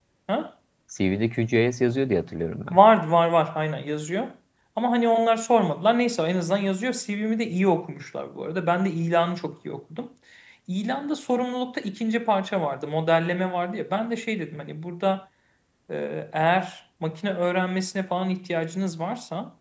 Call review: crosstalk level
none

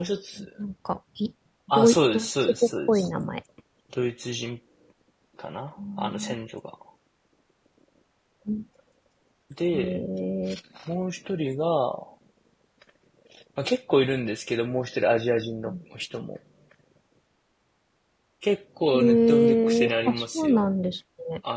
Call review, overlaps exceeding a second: present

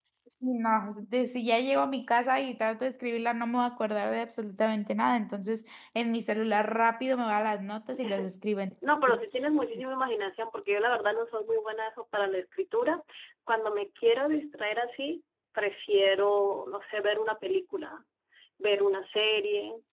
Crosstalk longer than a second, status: none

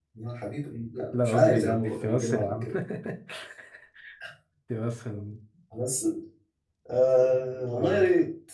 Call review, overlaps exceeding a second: present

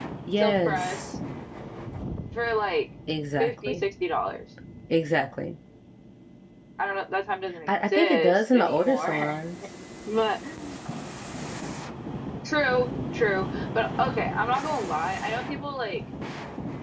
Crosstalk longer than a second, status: present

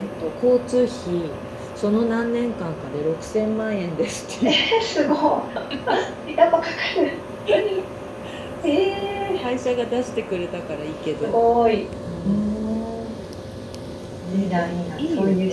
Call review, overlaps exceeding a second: present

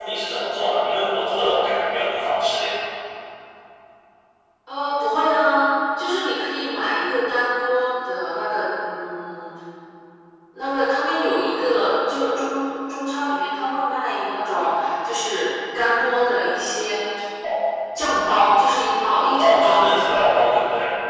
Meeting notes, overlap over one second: none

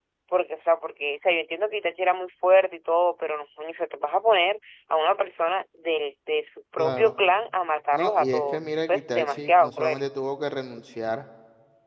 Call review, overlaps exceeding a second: present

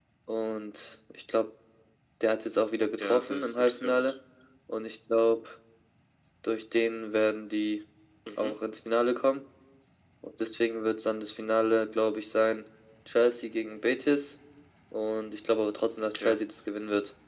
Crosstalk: present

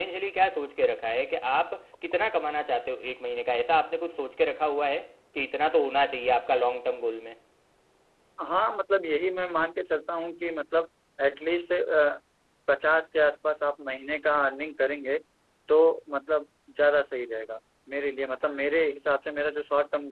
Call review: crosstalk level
none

